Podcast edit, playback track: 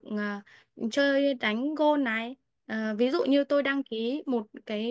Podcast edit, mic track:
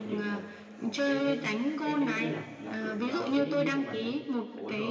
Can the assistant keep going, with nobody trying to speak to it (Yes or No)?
No